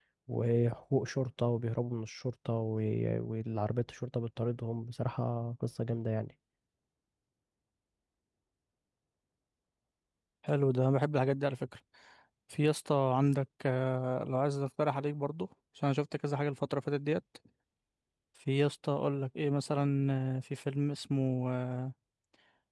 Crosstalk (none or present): none